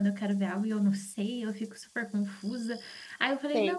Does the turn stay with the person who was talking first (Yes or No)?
Yes